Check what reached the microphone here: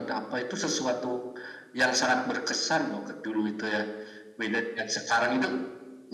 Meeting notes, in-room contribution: none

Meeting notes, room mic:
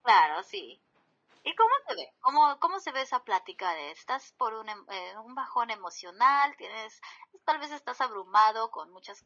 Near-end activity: none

